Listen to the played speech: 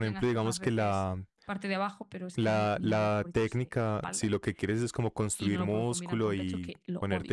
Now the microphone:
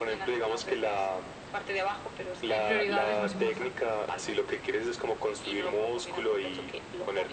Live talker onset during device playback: 2.5 s

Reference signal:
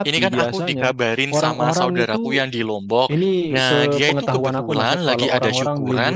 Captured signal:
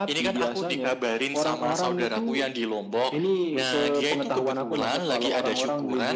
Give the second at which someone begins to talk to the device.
none

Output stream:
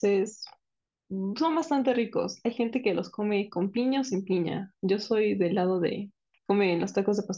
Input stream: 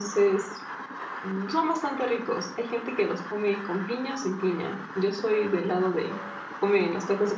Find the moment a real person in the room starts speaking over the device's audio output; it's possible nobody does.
none

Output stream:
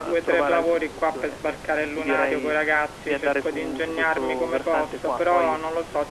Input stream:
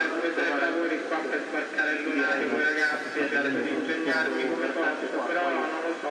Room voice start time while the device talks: 2.3 s

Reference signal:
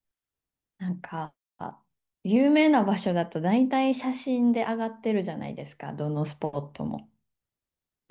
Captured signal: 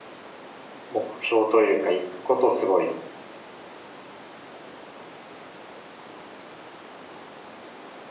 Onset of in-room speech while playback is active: 0.9 s

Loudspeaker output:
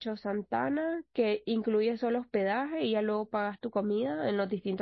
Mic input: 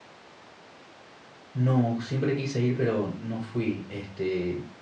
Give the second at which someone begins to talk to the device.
1.5 s

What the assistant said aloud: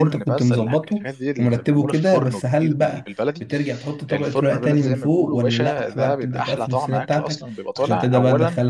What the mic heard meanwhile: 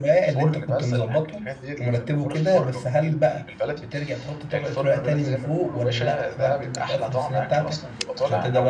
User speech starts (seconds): none

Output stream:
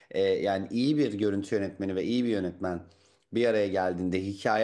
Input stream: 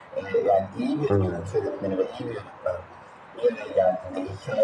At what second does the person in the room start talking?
1.1 s

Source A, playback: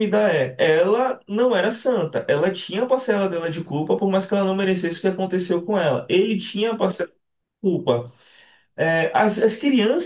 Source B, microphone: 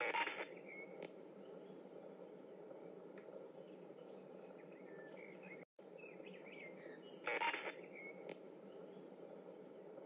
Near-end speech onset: none

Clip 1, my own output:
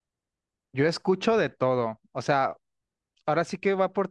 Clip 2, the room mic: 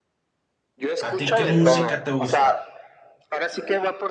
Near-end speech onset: 1.0 s

